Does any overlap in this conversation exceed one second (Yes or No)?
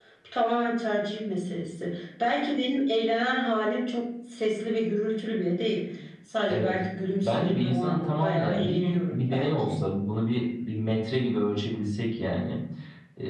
Yes